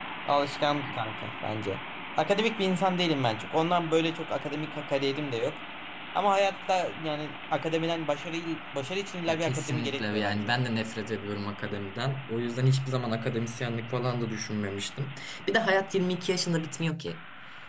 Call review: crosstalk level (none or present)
present